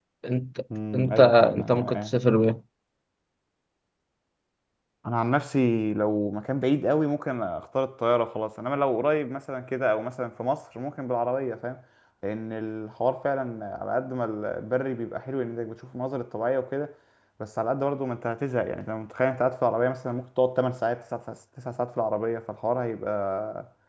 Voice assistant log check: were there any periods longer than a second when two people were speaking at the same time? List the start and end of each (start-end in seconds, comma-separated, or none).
0.9-2.1